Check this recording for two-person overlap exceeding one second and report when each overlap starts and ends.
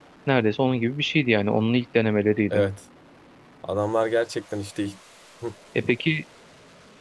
none

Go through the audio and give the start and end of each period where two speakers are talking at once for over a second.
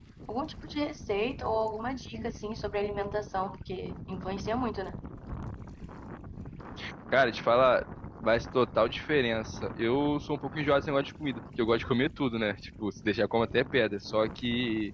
none

